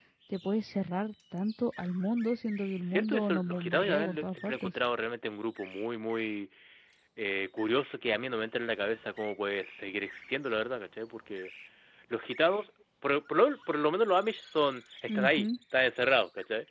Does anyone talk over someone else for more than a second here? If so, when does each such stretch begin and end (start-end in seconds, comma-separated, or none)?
2.8-4.7